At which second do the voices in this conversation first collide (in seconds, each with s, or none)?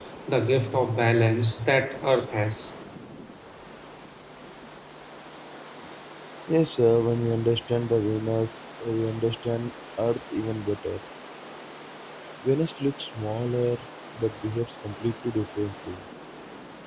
none